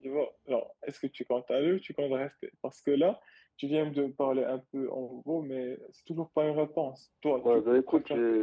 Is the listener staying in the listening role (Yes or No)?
No